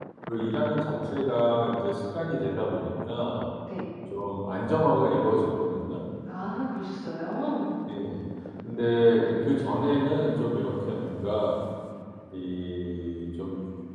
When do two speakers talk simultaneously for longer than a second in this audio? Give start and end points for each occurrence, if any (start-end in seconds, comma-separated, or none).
none